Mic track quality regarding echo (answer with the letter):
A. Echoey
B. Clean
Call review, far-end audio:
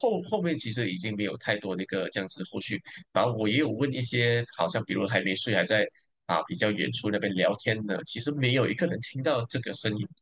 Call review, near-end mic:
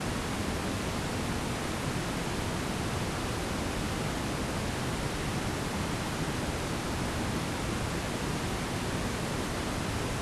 B